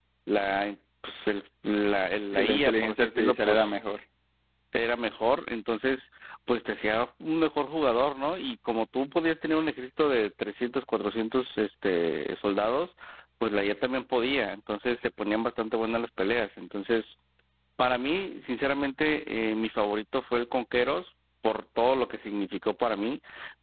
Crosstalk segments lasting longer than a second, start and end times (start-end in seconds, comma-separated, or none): 2.3-3.7